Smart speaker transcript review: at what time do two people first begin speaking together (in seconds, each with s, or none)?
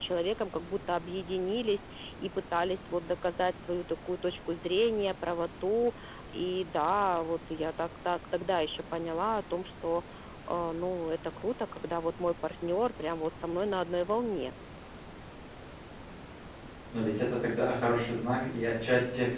none